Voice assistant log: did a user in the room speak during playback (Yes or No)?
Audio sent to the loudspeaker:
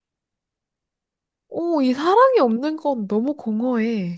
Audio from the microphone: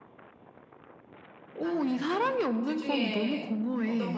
Yes